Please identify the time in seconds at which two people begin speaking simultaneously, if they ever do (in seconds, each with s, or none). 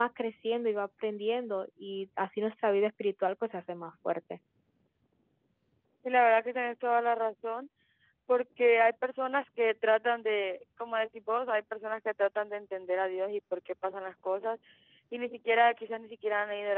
none